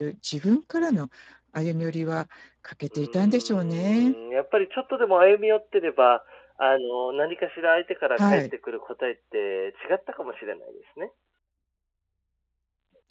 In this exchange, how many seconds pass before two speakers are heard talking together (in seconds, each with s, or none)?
2.9 s